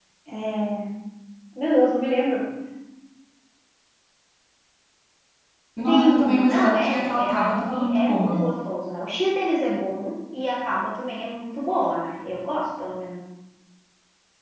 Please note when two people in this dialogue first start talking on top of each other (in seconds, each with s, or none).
5.9 s